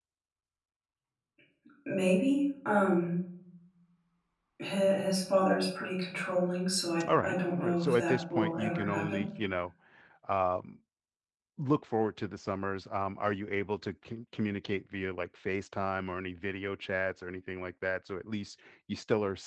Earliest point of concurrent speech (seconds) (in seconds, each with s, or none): 7.0 s